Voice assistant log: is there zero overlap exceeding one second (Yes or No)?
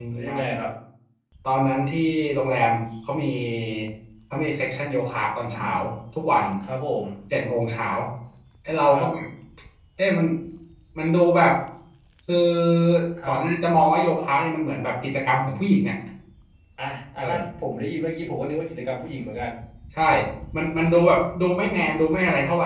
Yes